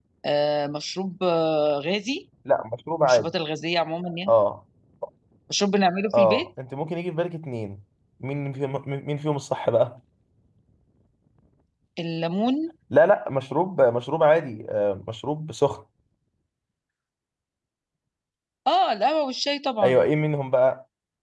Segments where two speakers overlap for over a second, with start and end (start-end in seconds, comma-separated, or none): none